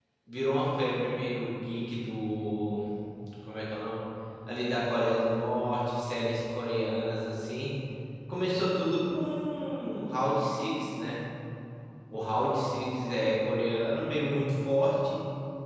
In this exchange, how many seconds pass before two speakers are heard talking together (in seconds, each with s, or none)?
none